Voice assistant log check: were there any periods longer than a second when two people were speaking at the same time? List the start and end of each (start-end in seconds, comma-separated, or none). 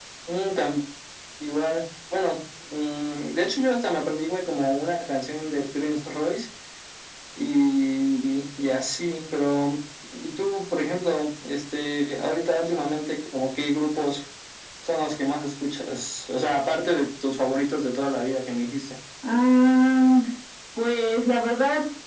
none